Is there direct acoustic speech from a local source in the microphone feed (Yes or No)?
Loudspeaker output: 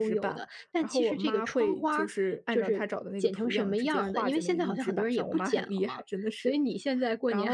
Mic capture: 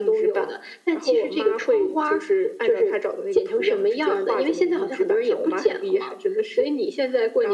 No